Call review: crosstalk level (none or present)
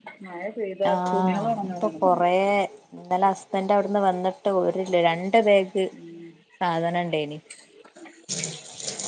present